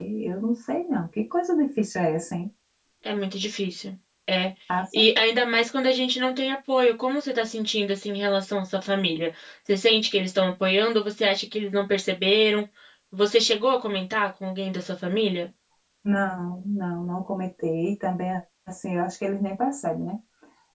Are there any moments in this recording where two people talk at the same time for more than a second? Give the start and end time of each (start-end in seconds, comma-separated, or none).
none